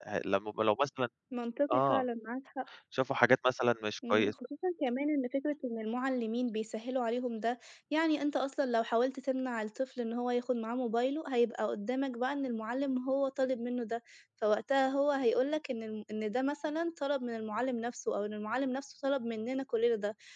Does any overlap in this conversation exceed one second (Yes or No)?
No